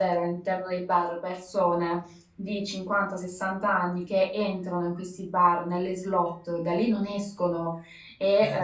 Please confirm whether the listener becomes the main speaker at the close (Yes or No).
No